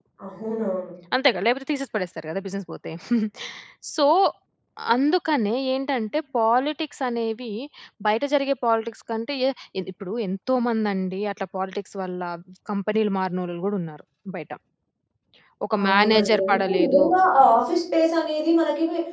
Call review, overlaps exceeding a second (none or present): present